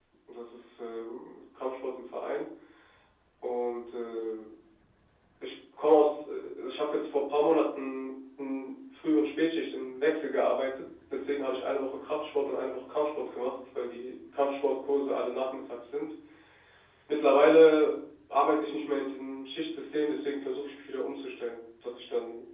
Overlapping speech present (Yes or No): No